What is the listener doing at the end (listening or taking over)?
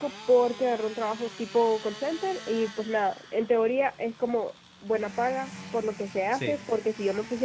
listening